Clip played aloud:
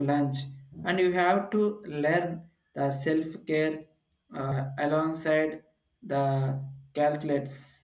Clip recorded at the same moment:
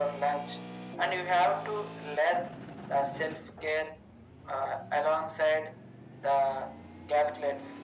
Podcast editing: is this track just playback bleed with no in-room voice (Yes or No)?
Yes